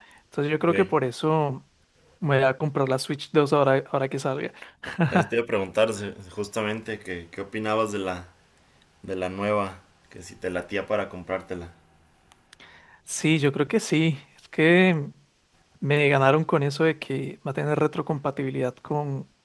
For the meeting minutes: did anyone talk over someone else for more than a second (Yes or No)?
No